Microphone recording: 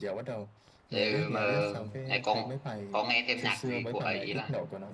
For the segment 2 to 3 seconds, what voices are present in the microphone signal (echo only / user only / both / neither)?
both